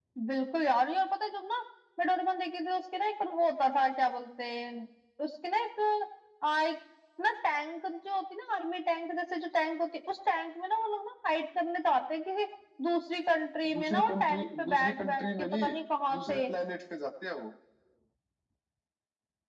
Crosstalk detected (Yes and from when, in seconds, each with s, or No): Yes, from 13.7 s